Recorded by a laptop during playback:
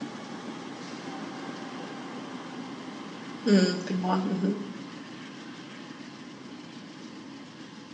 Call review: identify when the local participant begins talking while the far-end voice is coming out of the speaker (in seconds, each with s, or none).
3.5 s